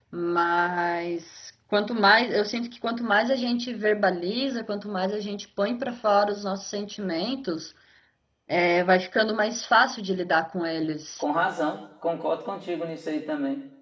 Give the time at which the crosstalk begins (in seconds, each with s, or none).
none